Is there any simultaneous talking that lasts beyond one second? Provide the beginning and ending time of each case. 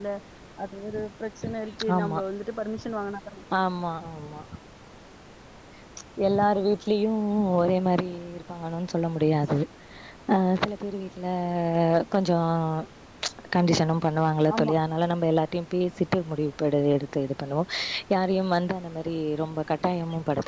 none

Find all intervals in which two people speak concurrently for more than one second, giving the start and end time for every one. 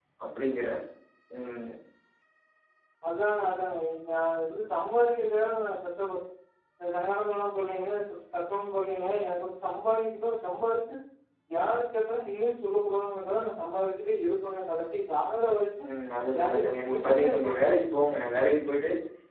16.3-17.6

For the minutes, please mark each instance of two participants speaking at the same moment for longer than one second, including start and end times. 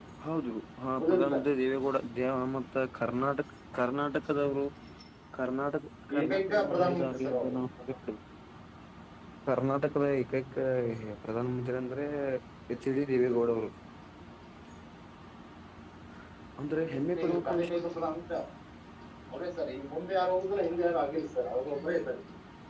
6.2-7.5

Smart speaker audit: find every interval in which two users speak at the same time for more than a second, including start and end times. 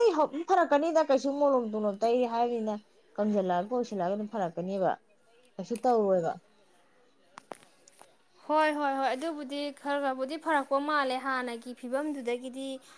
none

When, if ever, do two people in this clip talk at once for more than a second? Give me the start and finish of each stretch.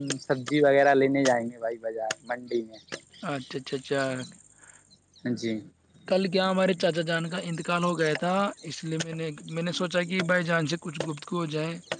none

